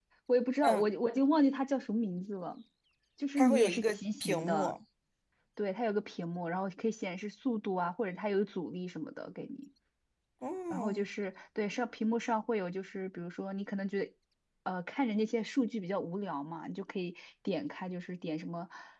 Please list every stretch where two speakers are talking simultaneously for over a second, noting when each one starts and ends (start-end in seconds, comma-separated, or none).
3.4-4.7